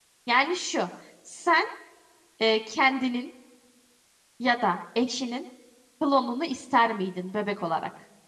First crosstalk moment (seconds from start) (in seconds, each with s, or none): none